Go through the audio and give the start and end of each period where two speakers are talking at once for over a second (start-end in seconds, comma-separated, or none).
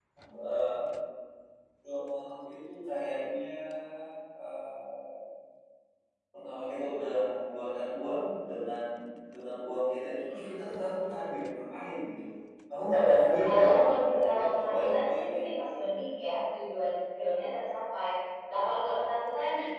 13.5-15.4